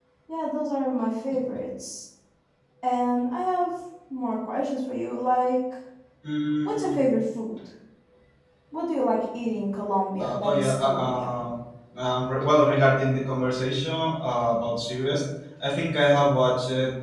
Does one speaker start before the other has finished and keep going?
Yes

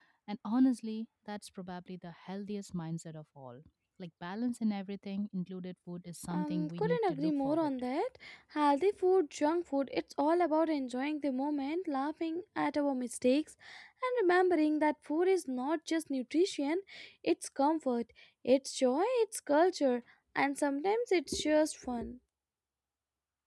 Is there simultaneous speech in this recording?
Yes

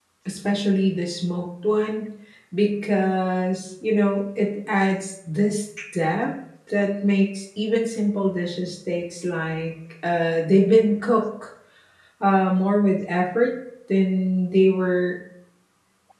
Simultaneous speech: No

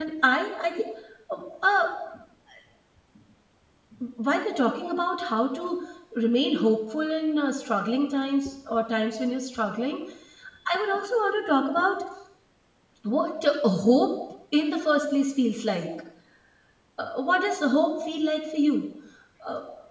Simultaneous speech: No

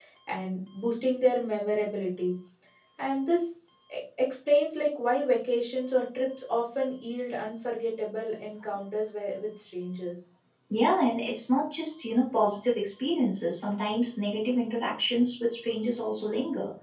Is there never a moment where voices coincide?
Yes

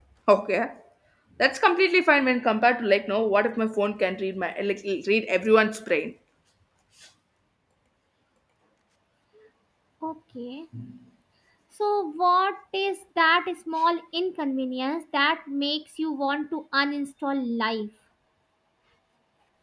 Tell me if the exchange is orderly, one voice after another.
Yes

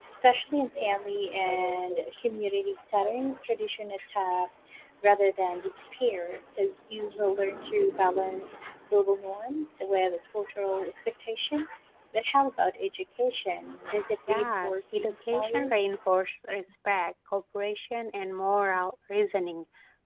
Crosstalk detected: Yes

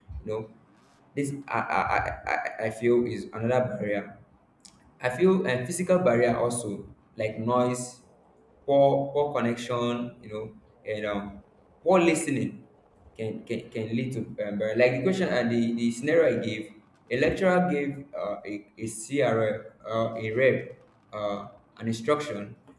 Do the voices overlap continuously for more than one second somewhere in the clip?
No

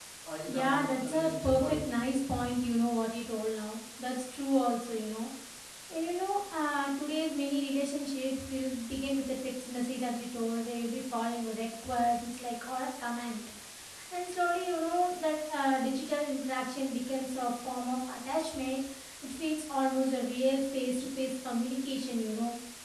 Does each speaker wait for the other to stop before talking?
No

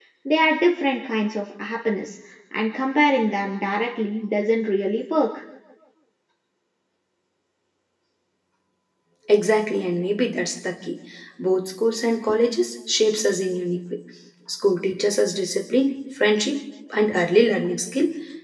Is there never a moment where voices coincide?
Yes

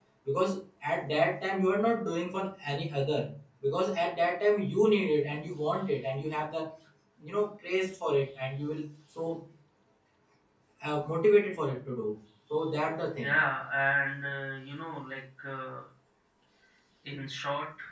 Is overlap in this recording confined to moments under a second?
Yes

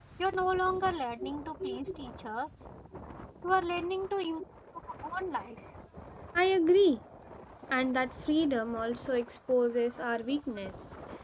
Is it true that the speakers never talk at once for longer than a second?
Yes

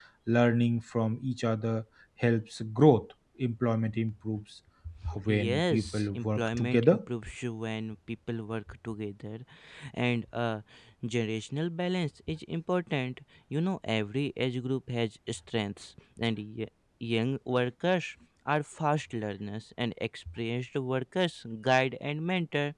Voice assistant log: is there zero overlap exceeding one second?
No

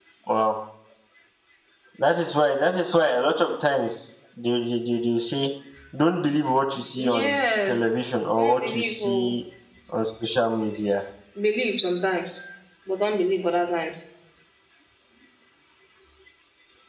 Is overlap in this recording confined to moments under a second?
No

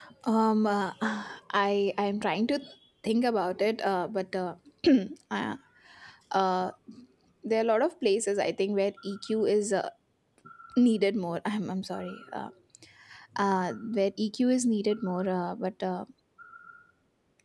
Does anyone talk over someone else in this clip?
No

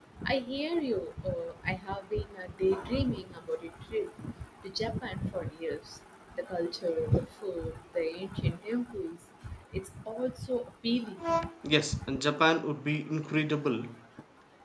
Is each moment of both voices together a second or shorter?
Yes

